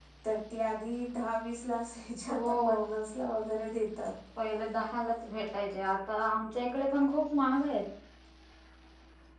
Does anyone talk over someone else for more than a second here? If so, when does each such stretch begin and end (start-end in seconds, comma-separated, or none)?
none